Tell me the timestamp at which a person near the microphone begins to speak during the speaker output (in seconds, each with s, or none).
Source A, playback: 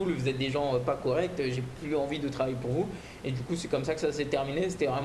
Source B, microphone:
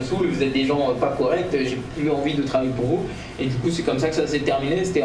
none